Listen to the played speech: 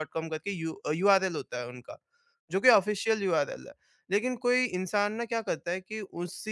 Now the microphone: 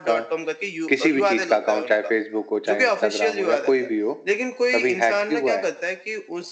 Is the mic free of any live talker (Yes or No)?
No